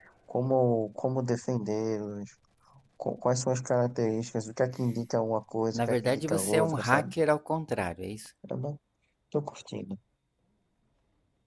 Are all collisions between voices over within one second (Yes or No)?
No